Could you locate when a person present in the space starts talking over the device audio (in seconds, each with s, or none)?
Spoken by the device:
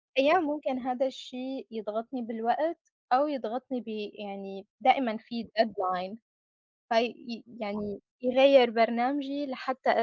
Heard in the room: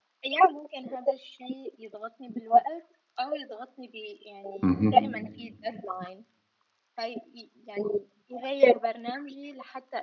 4.6 s